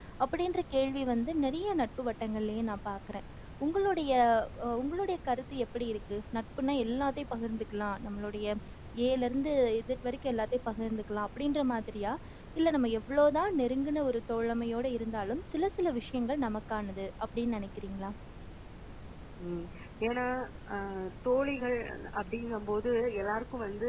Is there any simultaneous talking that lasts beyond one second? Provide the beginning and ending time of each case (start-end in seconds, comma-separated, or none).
none